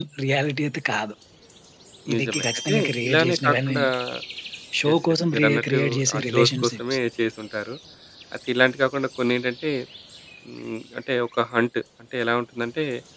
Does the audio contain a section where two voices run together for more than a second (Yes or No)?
Yes